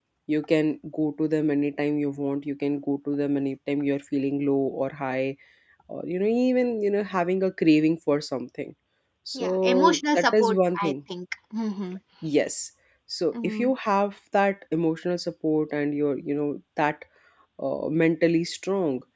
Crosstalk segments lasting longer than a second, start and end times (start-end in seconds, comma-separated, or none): 9.3-10.9